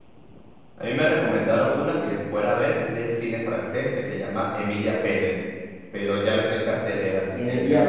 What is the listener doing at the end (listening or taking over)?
taking over